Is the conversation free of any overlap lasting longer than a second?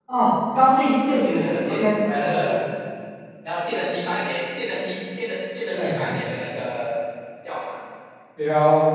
No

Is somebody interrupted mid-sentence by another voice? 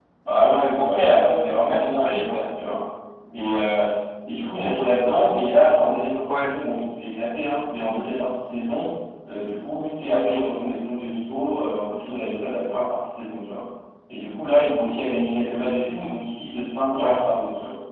Yes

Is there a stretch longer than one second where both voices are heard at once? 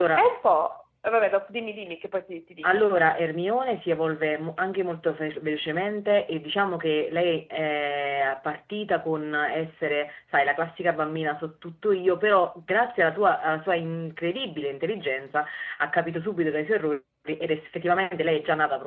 No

